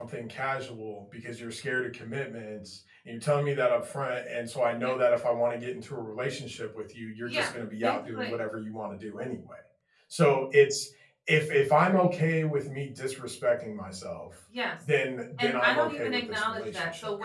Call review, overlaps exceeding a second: present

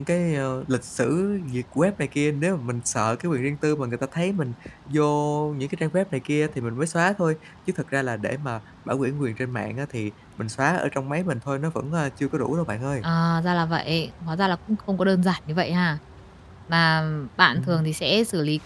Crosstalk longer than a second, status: none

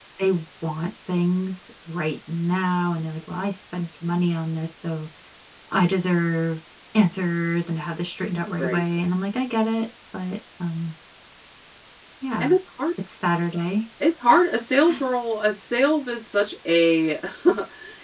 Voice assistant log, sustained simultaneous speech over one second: none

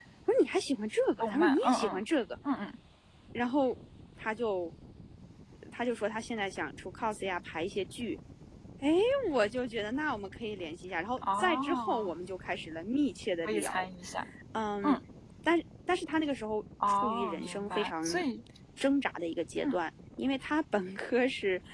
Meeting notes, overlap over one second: present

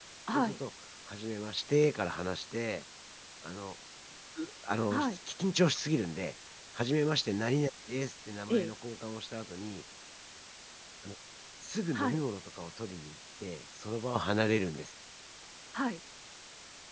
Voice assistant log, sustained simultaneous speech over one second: none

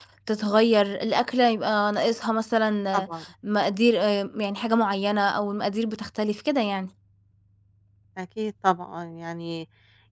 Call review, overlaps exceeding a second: none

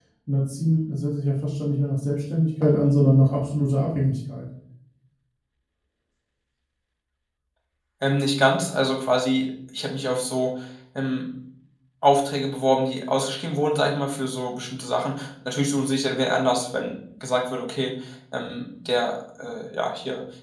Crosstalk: none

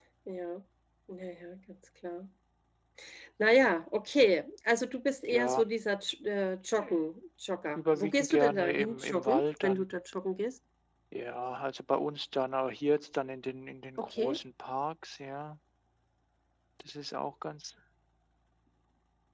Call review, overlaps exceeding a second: present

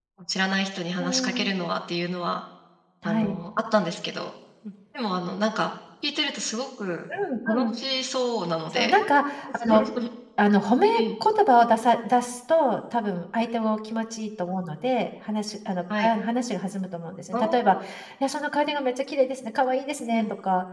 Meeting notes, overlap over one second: none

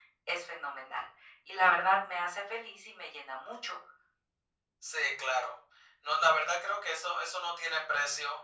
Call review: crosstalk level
none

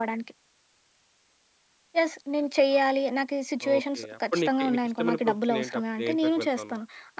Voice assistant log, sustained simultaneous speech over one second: present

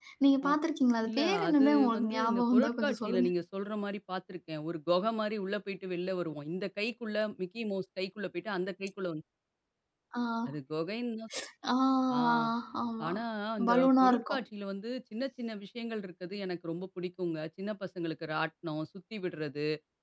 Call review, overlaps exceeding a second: present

